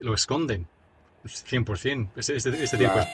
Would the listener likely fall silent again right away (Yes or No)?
Yes